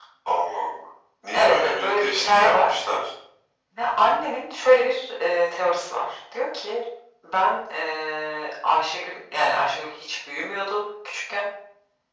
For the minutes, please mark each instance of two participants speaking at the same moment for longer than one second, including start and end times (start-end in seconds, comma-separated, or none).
1.3-2.7